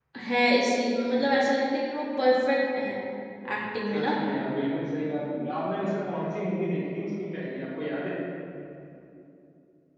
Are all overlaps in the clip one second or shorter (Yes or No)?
Yes